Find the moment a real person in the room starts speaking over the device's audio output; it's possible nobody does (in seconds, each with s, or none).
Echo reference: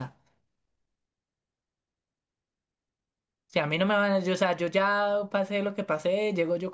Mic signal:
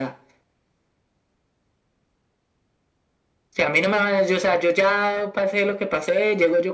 none